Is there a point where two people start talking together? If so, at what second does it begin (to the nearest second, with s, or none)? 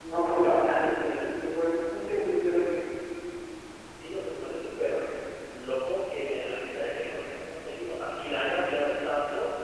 none